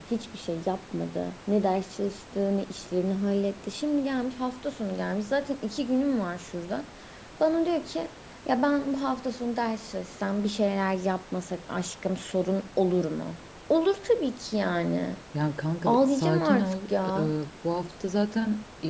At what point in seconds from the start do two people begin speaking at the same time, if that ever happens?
15.8 s

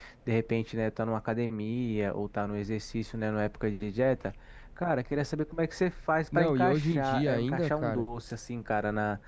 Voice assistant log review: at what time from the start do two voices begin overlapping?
6.3 s

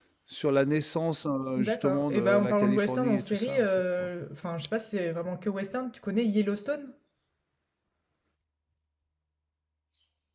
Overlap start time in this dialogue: 1.6 s

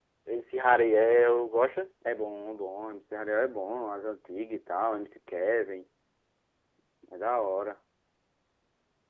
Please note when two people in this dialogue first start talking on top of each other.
none

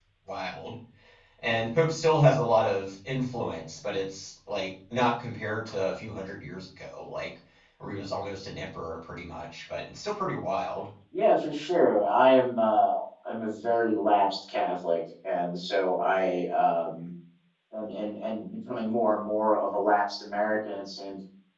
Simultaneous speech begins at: none

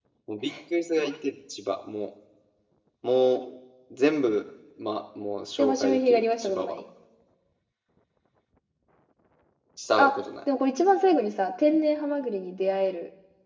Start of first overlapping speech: 5.6 s

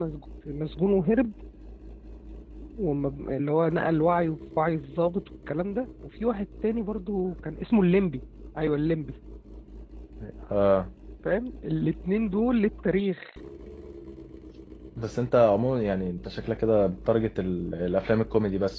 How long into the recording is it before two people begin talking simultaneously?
none

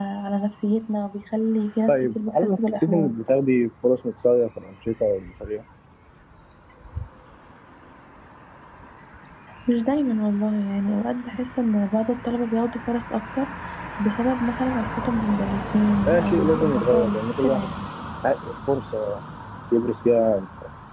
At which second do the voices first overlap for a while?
1.9 s

